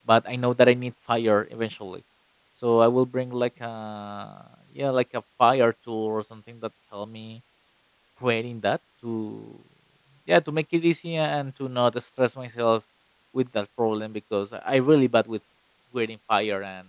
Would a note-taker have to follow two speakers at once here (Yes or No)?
No